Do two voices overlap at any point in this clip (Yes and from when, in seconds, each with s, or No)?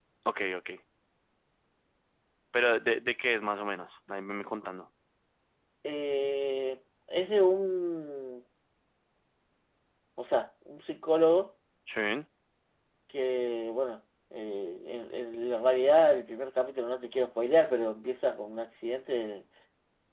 No